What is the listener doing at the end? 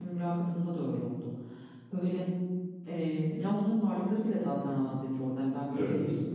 listening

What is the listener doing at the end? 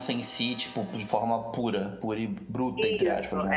taking over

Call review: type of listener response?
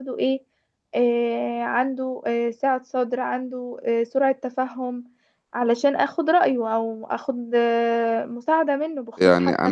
taking over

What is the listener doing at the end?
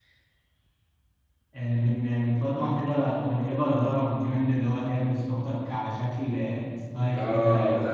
taking over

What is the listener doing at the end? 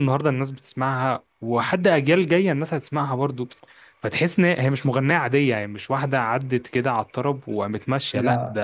listening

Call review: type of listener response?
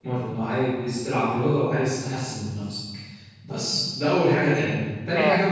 listening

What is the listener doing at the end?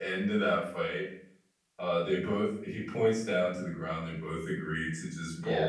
listening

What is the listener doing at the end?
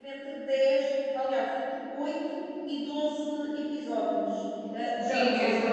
taking over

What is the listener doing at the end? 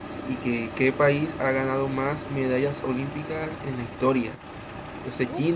listening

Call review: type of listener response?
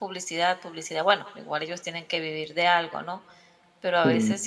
listening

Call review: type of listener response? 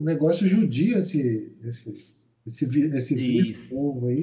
taking over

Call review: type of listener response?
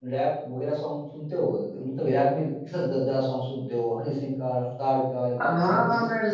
taking over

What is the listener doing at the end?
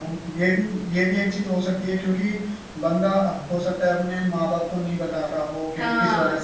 listening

